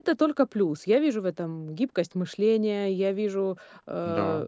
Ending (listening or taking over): listening